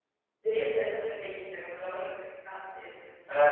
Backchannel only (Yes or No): No